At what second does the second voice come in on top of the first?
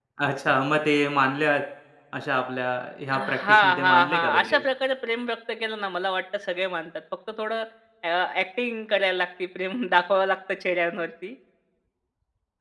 3.1 s

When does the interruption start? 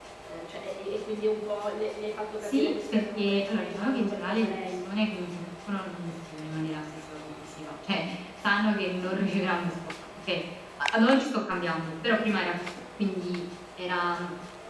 2.4 s

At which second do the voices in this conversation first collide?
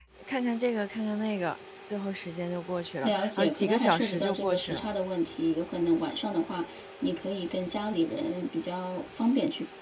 3.0 s

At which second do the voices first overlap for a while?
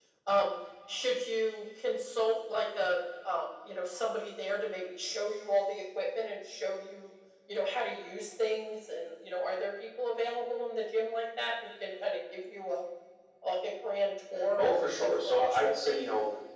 14.3 s

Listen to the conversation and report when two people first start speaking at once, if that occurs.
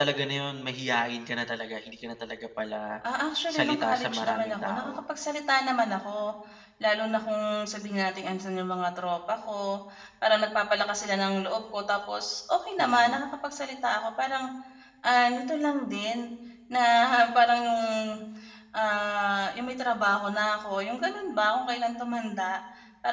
3.5 s

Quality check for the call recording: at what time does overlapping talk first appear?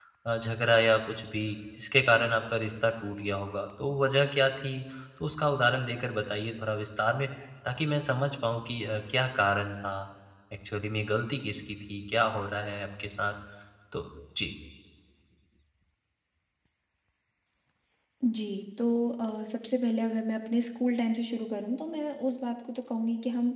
none

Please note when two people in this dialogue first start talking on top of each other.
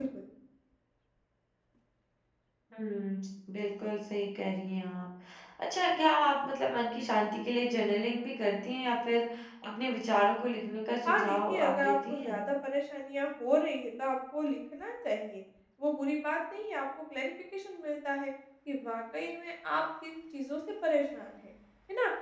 11.1 s

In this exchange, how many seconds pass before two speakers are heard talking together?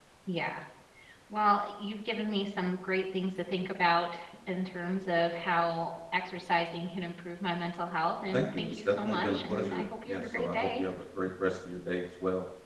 8.3 s

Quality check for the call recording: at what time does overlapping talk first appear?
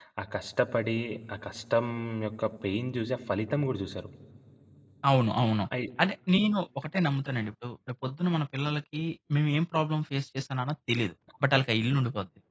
none

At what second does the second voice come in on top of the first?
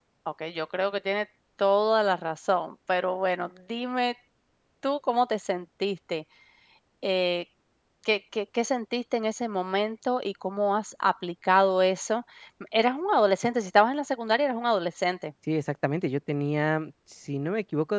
none

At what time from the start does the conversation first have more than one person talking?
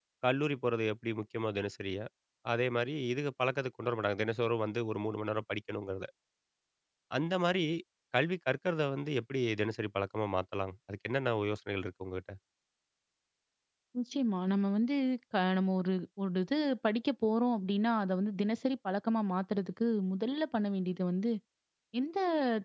none

